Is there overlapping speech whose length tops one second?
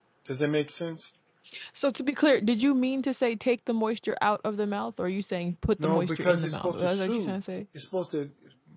Yes, from 5.8 s

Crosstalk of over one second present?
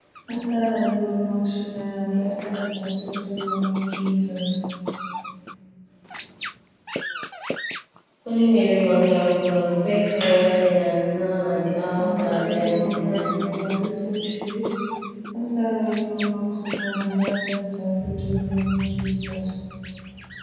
Yes, from 12.0 s

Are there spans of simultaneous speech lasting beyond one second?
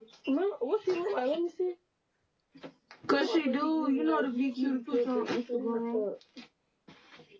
Yes, from 3.1 s

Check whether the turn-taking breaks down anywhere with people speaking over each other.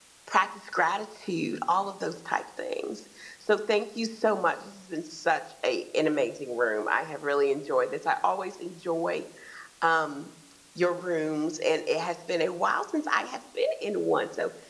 No

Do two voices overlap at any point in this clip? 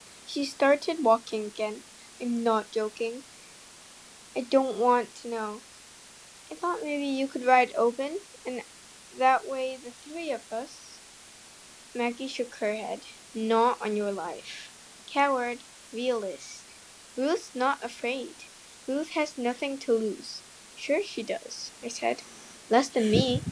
No

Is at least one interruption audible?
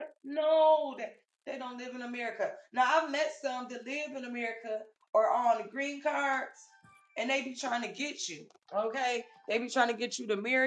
No

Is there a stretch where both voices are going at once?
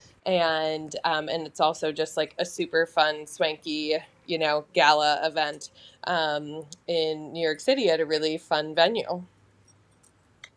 No

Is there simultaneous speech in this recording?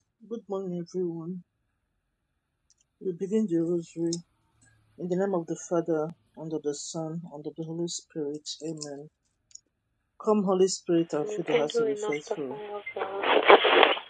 Yes, from 11.2 s

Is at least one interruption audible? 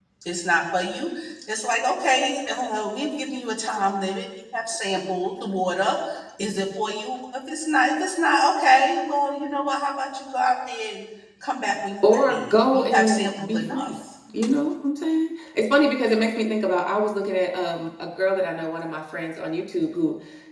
Yes, from 12.0 s

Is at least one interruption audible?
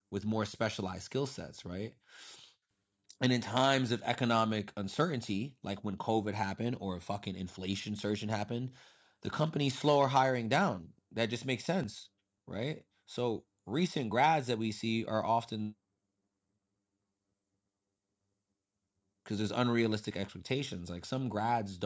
No

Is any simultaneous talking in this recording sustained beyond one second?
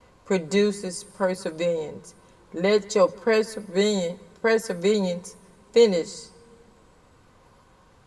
No

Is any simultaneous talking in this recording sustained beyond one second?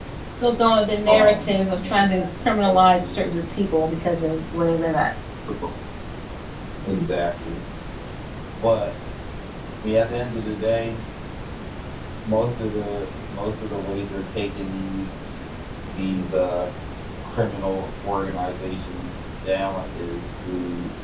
Yes, from 1.0 s

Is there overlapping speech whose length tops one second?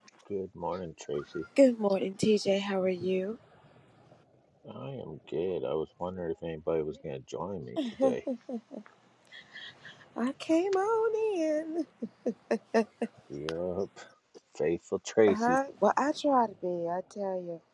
No

